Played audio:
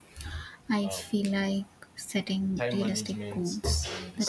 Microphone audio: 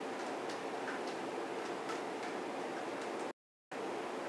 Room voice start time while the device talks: none

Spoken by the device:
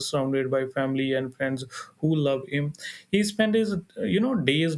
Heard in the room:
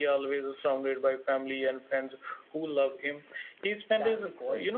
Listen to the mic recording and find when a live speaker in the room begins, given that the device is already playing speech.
3.9 s

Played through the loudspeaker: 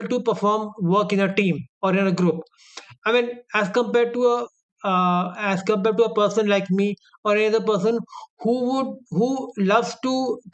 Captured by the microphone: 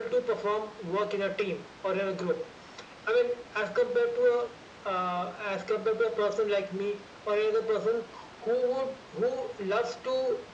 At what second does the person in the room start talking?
none

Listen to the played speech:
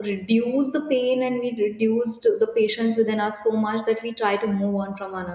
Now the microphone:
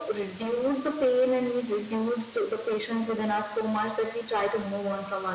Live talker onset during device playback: none

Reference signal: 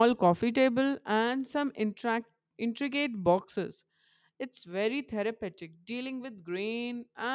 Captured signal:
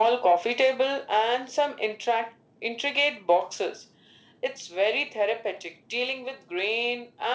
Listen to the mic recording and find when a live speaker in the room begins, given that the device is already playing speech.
none

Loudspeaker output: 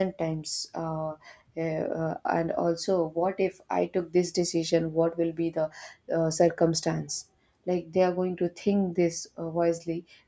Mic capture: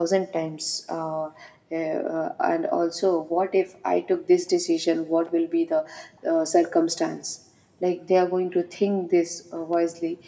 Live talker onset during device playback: none

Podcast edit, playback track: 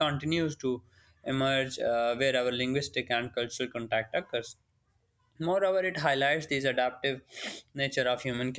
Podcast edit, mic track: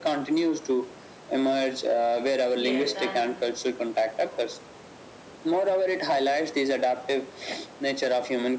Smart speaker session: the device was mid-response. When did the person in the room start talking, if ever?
2.5 s

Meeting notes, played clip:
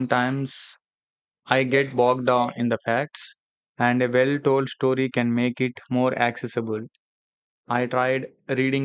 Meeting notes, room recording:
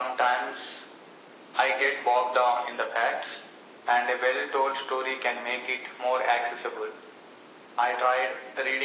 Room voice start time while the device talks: none

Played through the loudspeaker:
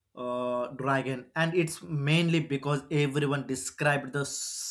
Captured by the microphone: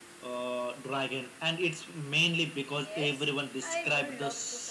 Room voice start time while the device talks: 2.8 s

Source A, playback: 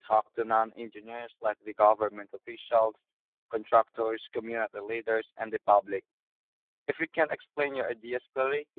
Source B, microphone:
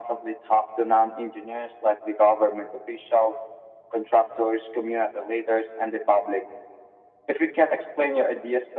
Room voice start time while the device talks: none

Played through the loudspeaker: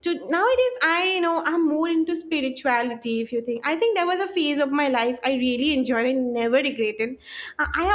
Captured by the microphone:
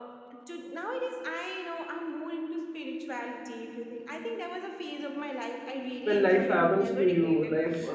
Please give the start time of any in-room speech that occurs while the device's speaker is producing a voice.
6.0 s

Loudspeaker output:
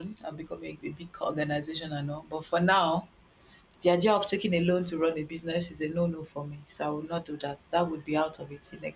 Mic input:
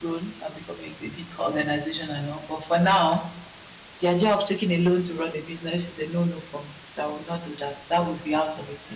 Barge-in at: none

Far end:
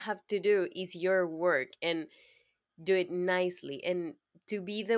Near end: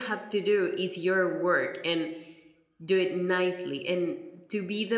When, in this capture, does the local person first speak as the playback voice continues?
none

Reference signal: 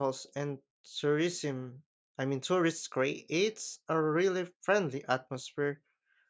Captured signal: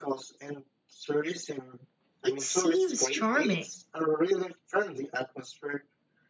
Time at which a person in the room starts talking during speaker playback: 2.2 s

